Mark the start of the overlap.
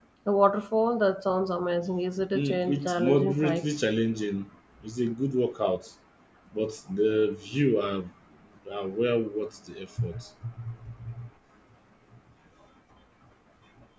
2.4 s

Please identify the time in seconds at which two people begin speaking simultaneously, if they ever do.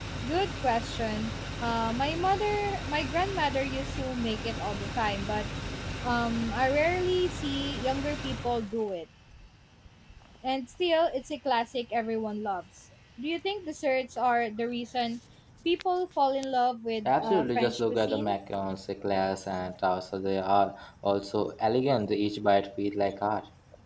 17.0 s

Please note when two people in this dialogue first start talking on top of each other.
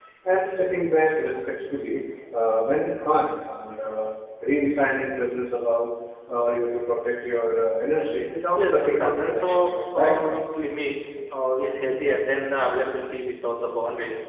8.6 s

